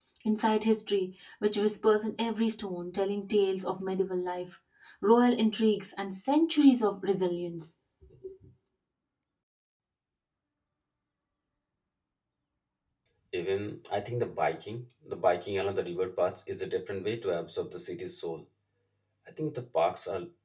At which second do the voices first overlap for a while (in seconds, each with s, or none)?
none